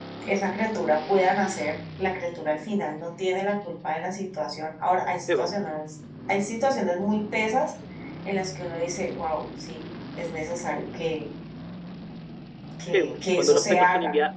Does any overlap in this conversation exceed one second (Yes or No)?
Yes